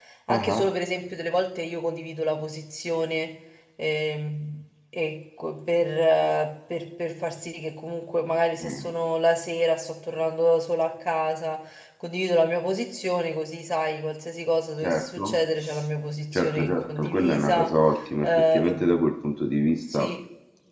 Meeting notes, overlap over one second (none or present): present